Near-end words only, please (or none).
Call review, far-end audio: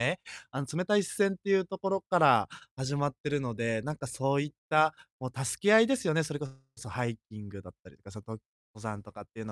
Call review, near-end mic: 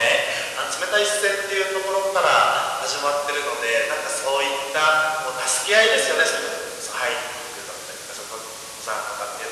none